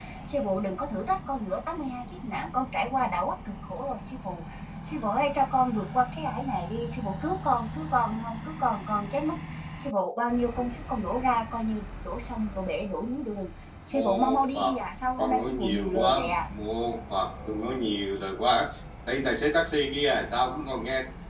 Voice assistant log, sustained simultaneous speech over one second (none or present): present